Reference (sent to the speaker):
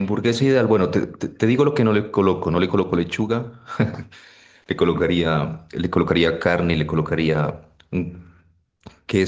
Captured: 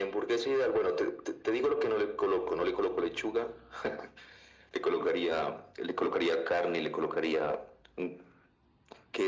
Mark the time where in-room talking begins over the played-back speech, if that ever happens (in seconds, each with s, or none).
none